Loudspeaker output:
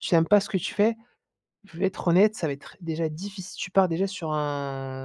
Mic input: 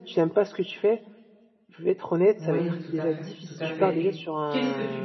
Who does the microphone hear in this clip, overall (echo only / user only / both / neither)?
both